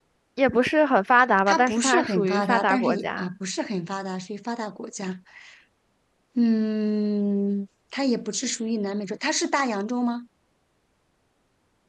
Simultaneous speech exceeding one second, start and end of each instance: 1.5-3.3

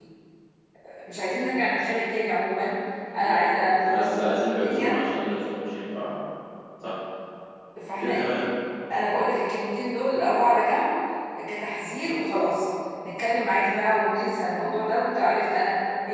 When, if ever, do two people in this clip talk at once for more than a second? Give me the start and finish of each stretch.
3.2-4.9

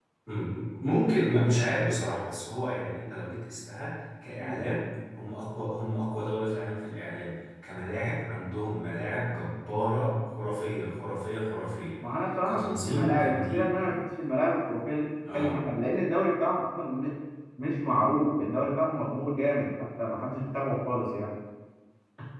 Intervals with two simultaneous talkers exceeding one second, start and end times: 12.4-13.7

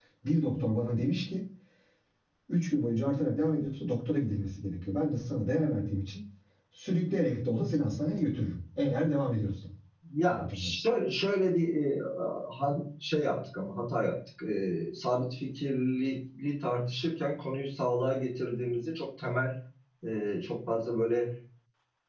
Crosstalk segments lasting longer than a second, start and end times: none

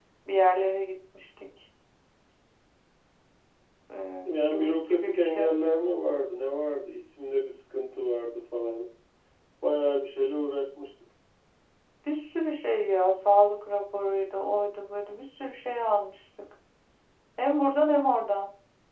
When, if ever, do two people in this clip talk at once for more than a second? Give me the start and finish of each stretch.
4.2-5.5

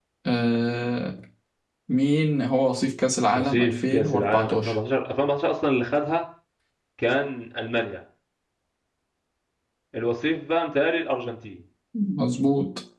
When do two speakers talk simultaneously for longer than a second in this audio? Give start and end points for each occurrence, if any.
3.3-4.7

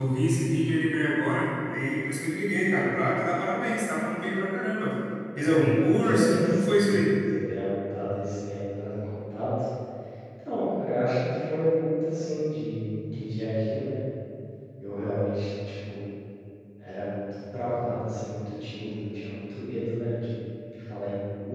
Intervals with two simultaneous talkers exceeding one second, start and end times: 5.5-7.0

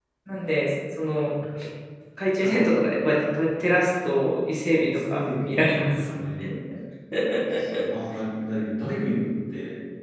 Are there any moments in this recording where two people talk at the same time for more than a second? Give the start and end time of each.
4.8-6.1

